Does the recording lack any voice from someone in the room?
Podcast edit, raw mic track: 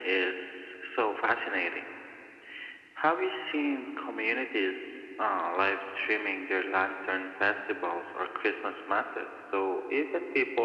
Yes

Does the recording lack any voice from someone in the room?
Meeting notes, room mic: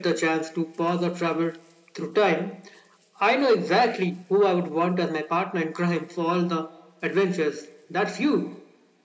Yes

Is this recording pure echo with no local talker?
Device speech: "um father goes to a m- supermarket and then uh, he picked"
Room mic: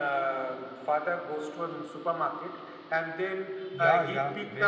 No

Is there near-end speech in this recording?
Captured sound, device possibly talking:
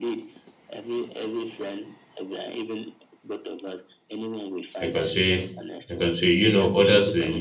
Yes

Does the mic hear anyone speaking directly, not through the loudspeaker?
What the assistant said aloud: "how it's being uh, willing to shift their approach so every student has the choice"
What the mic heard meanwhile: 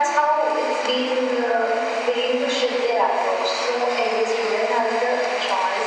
No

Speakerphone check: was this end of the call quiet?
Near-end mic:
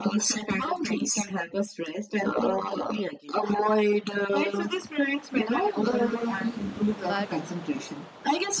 No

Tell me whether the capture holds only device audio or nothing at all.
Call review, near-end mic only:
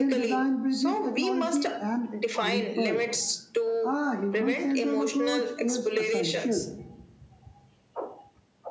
No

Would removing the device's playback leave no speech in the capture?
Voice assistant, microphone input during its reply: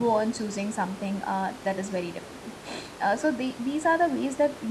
No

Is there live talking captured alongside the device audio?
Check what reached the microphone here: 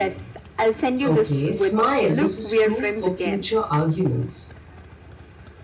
Yes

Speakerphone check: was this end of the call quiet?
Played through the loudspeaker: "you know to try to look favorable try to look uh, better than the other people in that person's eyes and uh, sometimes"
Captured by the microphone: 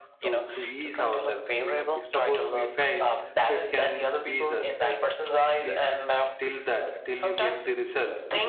No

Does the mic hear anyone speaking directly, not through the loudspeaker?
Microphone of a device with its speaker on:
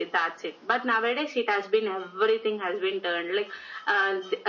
No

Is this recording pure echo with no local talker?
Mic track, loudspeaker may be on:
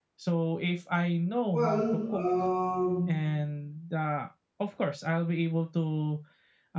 No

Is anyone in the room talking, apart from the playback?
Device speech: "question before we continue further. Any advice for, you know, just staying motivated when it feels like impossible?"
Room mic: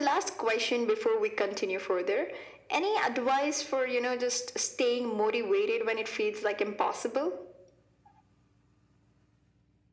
No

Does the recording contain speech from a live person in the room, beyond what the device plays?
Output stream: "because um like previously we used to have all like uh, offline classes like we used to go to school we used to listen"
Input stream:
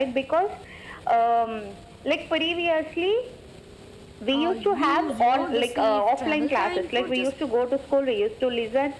Yes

